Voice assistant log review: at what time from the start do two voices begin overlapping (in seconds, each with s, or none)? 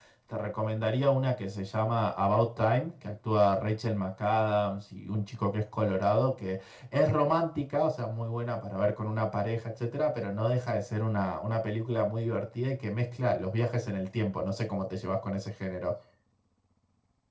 none